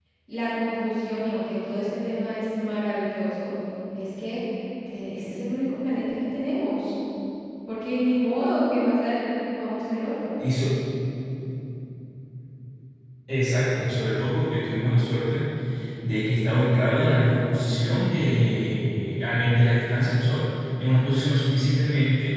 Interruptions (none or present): none